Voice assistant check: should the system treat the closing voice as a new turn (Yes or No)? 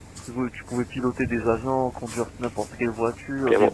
Yes